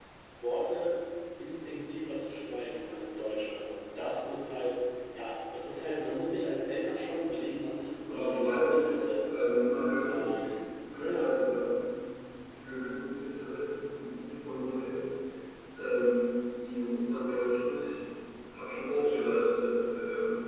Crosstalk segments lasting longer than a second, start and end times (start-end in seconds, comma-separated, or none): 8.1-9.3